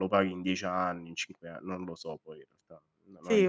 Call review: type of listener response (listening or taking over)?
taking over